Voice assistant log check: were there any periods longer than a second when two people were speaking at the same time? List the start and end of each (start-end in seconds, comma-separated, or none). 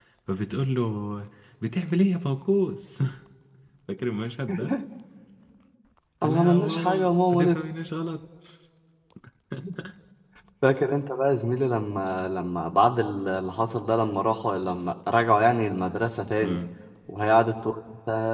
6.2-7.6